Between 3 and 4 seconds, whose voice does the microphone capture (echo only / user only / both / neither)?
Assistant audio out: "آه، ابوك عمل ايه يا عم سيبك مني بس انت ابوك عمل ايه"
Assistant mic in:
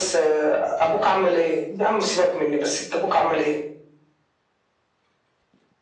echo only